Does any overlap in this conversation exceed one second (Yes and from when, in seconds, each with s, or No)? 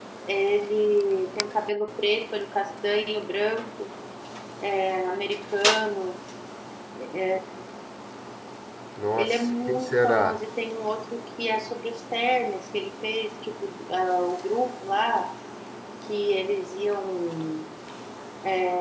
Yes, from 9.2 s